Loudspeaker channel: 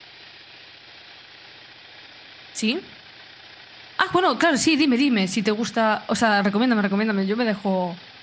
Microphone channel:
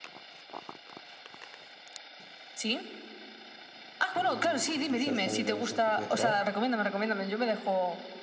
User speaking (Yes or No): Yes